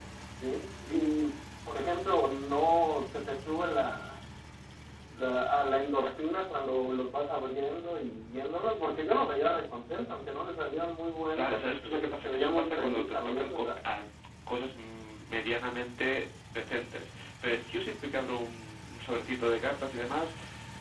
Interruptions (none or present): present